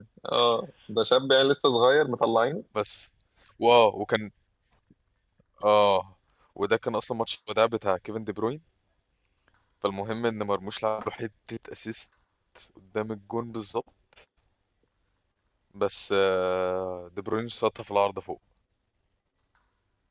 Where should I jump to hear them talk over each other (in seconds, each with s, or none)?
none